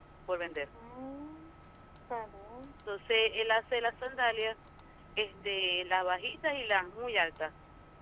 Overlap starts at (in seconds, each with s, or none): none